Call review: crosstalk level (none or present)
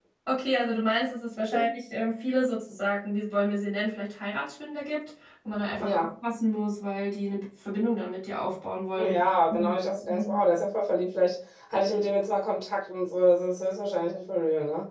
present